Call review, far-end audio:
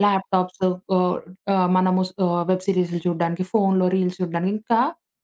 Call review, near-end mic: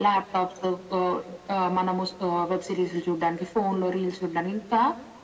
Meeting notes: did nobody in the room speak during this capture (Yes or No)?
Yes